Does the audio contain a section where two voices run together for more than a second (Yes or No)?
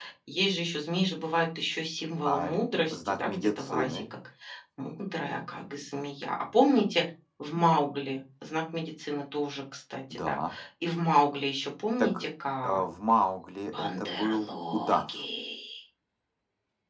Yes